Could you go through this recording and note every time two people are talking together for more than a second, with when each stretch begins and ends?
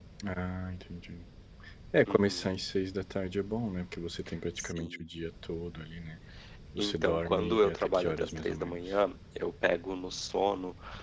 6.8-8.9

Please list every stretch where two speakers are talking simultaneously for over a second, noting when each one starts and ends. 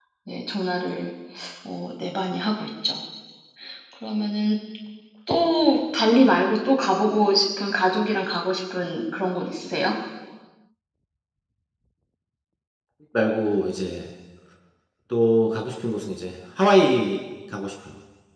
none

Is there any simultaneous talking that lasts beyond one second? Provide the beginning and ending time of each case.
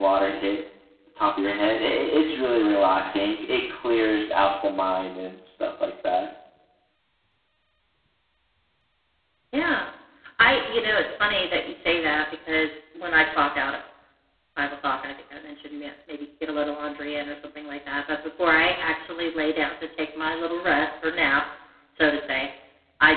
none

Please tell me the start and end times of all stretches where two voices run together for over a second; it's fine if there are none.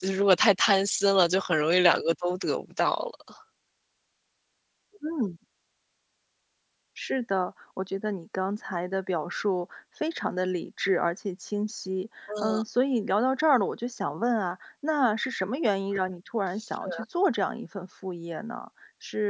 none

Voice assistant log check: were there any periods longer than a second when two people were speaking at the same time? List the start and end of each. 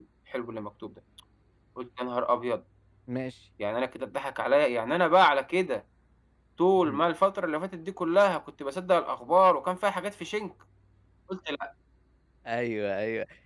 none

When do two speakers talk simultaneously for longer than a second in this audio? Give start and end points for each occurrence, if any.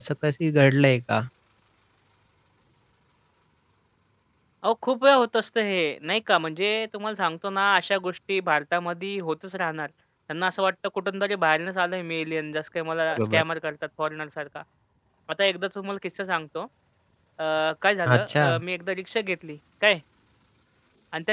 none

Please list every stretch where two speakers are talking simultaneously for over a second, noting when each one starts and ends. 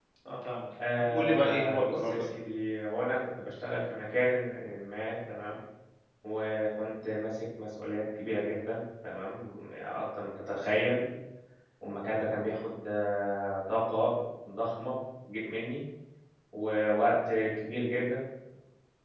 1.0-2.2

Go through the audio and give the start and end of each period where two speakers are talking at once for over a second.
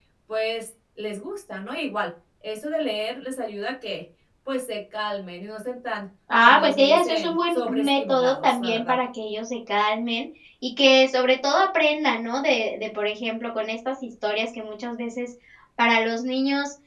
6.4-8.9

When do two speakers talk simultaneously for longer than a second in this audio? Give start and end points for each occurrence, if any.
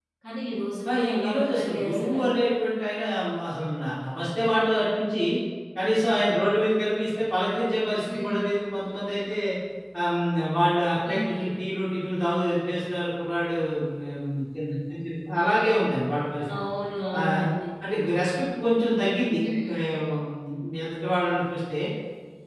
0.9-2.2

